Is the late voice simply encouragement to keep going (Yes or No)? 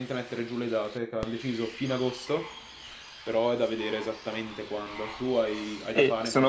No